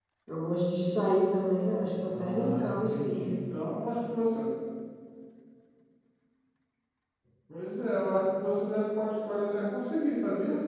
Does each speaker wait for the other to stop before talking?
No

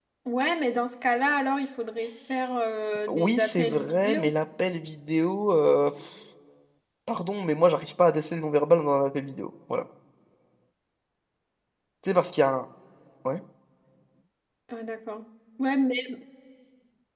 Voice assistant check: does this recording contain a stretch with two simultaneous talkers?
Yes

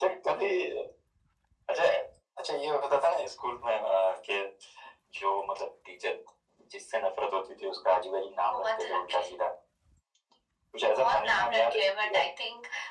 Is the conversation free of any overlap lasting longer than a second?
No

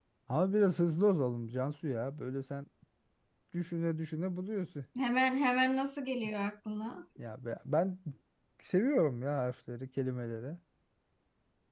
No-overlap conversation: Yes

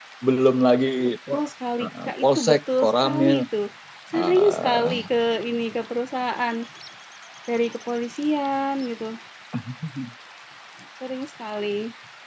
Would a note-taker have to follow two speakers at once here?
Yes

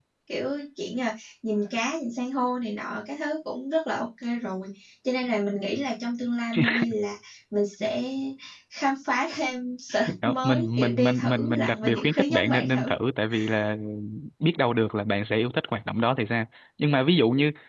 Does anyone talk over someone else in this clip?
Yes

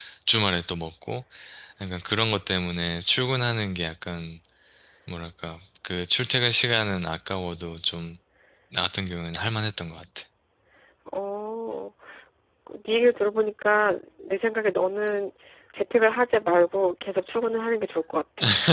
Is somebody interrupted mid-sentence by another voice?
No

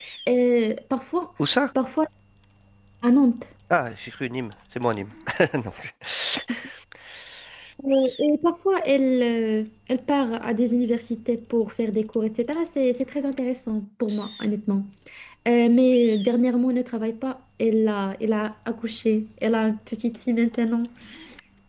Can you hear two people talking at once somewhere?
No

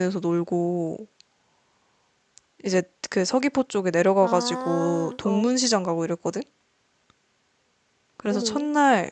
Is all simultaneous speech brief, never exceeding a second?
No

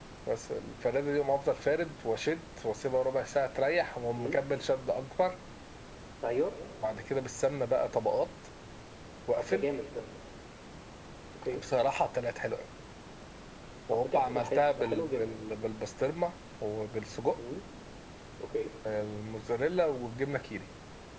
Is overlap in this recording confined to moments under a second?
No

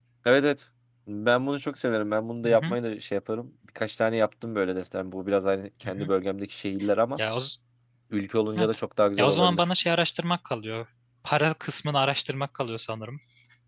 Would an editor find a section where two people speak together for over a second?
No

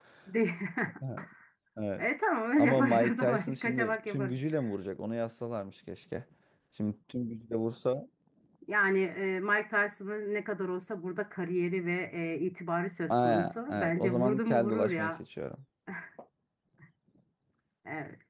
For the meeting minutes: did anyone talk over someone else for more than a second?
Yes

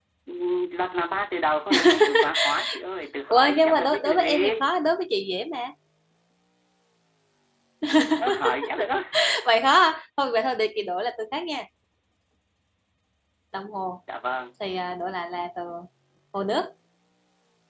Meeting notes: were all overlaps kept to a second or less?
No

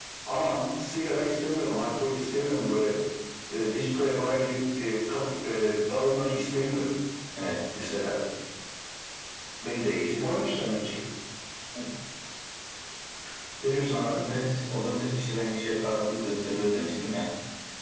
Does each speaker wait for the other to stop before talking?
Yes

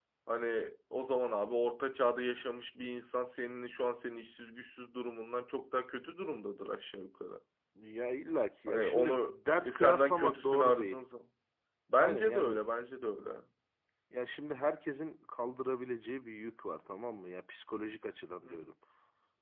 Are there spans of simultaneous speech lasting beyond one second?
Yes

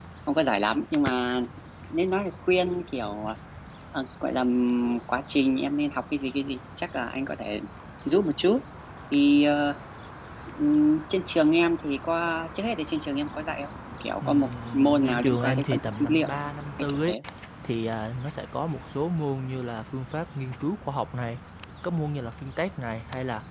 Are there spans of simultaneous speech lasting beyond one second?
Yes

